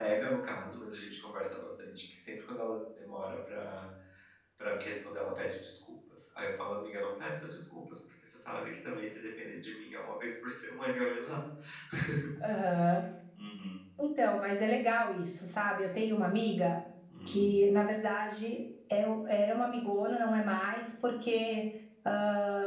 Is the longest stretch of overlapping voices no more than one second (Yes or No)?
Yes